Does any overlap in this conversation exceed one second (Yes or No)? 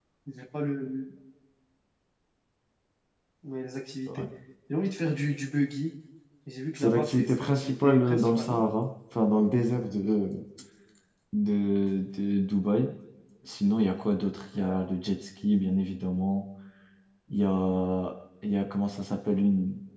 Yes